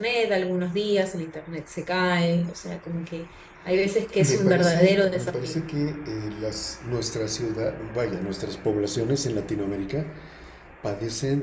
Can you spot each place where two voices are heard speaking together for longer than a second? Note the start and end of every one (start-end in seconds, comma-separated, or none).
4.2-5.6